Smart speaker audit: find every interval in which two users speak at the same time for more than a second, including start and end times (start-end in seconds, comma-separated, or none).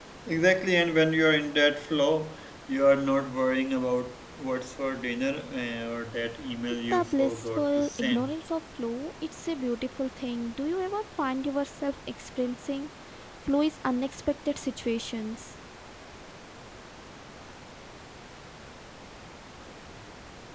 6.9-8.3